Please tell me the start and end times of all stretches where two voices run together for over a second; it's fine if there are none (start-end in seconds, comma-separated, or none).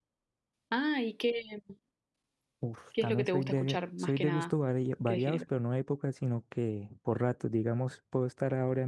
3.0-4.5